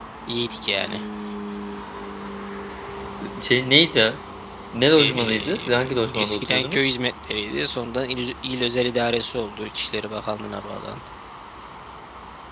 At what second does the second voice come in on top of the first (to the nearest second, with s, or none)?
5 s